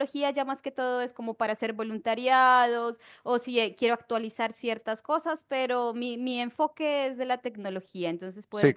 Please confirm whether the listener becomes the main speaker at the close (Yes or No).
Yes